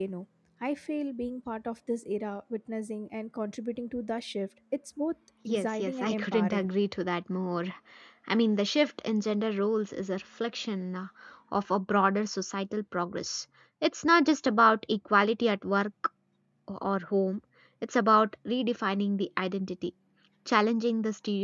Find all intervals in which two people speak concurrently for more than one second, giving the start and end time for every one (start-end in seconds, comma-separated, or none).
5.5-6.7